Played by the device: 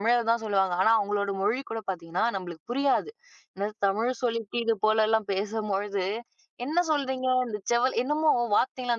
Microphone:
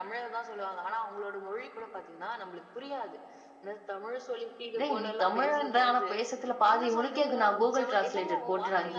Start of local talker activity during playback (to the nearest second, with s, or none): 5 s